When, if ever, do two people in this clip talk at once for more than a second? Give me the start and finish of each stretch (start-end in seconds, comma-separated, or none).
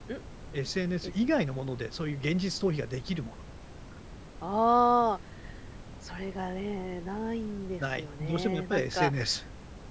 7.8-9.1